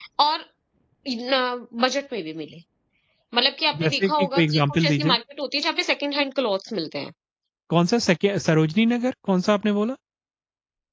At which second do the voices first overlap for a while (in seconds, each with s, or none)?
3.8 s